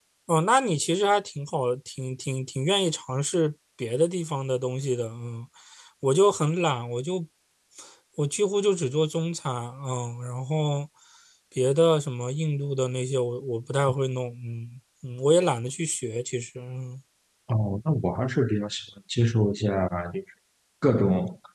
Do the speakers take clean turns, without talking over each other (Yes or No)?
Yes